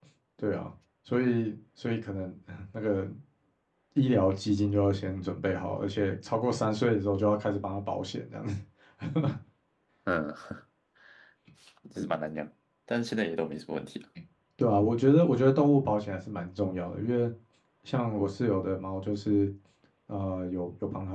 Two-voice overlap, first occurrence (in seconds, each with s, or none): none